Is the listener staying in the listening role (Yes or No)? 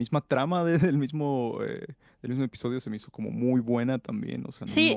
No